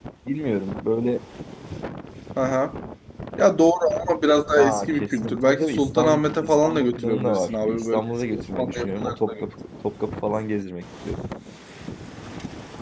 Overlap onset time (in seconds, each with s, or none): 4.6 s